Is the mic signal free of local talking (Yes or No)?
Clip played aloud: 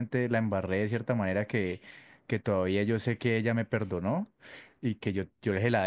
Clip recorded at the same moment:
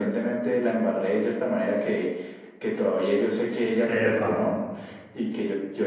No